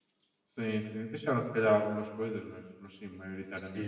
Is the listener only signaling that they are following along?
No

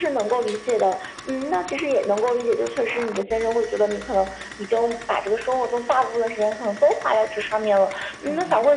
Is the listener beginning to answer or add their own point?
No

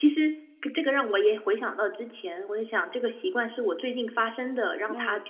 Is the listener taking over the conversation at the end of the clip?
No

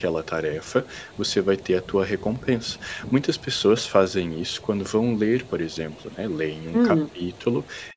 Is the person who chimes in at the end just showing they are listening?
Yes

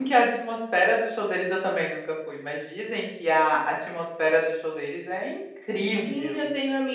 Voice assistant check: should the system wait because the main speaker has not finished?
No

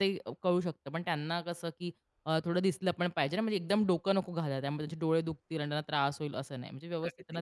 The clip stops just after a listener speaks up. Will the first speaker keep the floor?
No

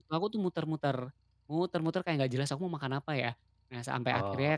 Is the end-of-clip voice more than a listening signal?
No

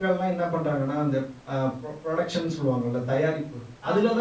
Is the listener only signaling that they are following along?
Yes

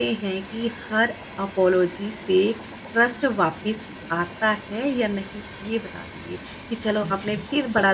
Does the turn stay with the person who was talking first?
Yes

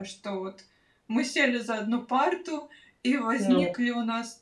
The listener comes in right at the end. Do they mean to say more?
No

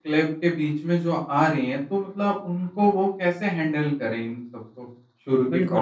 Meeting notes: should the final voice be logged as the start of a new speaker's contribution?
Yes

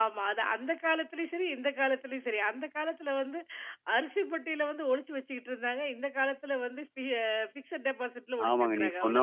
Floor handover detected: Yes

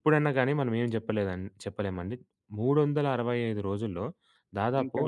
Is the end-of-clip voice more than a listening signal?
No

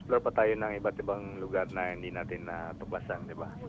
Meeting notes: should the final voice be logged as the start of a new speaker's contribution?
Yes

